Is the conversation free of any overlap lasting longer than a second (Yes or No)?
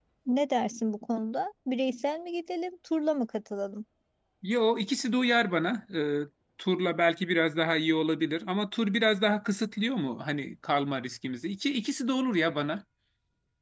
Yes